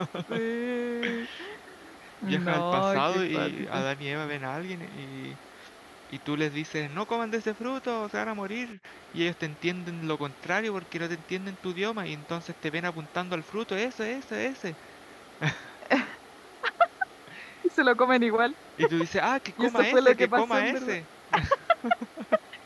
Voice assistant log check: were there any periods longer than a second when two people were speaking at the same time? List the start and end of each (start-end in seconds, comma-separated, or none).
2.2-3.8, 19.6-21.0